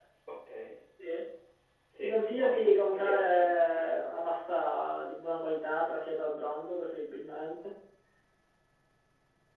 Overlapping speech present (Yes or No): Yes